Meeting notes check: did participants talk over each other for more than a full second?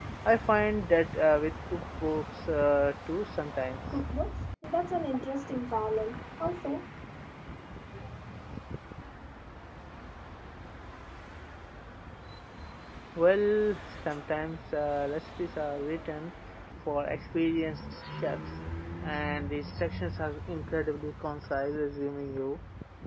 No

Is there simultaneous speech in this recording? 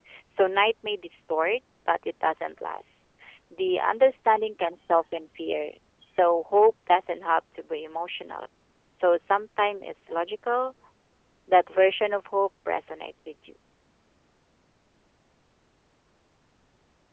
No

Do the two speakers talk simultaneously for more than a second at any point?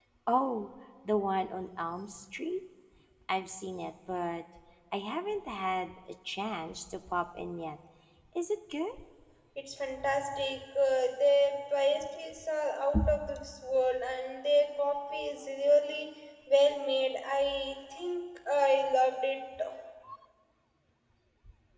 No

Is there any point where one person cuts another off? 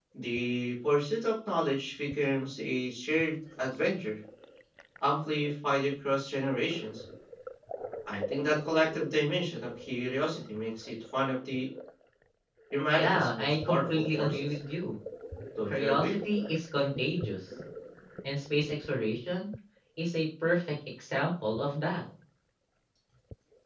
Yes, from 13.0 s

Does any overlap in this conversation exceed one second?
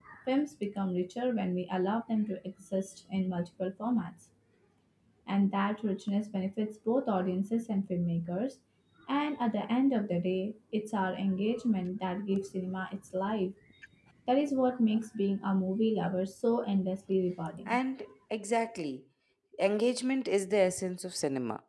No

